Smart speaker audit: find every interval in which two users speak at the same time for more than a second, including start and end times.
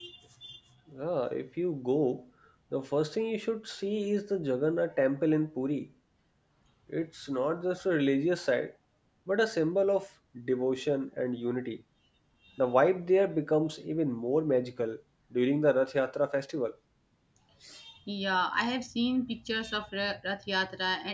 none

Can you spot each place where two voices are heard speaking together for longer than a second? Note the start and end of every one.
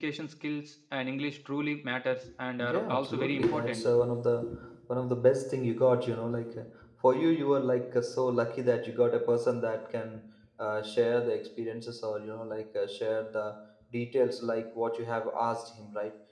2.6-3.9

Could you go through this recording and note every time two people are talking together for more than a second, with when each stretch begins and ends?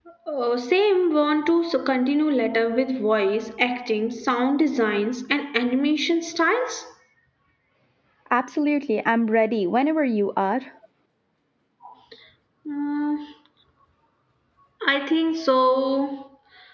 none

